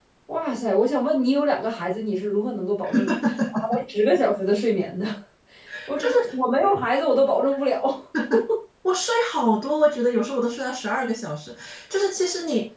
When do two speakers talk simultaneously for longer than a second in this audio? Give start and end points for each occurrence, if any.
none

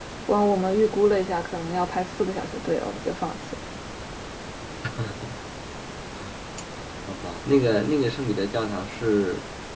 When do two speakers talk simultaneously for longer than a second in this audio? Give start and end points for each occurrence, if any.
none

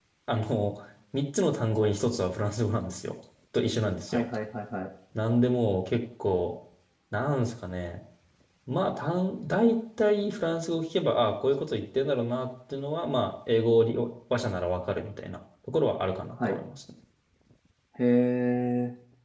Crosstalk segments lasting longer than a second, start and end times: none

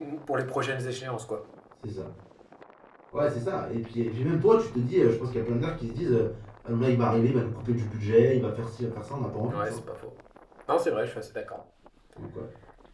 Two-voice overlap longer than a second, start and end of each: none

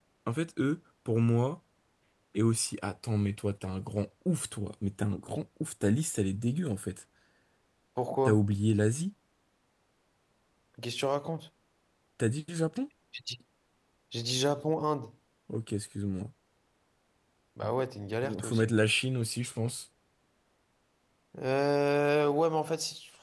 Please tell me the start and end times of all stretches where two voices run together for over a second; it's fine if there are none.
none

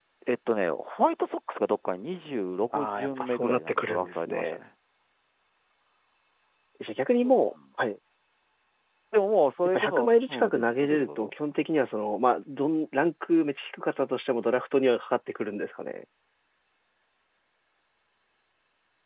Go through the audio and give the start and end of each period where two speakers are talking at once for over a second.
2.7-4.6, 9.7-11.3

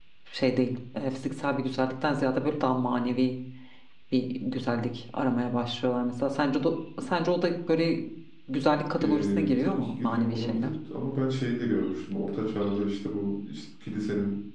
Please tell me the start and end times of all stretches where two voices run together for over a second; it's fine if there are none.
9.0-10.7

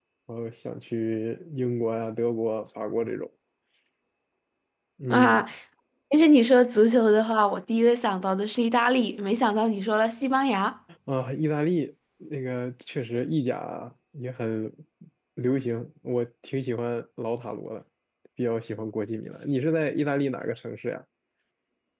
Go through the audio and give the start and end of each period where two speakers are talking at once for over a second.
none

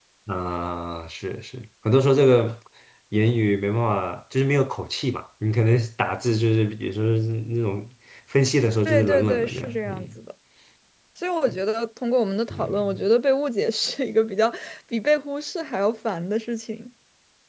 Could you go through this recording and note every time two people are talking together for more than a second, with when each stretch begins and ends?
8.8-10.1

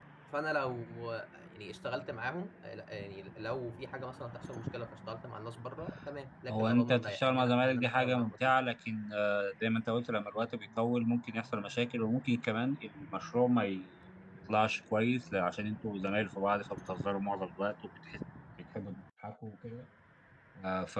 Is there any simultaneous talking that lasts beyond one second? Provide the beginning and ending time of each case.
6.5-8.3

